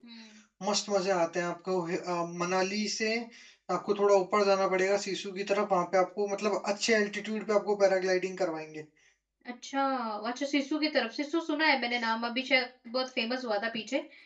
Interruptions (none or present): none